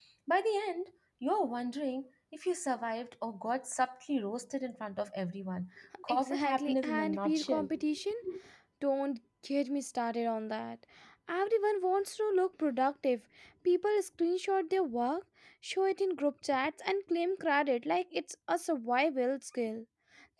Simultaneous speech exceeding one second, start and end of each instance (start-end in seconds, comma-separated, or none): 6.1-7.7